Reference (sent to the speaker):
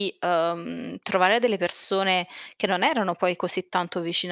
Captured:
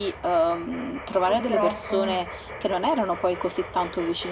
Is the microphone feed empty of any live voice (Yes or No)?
No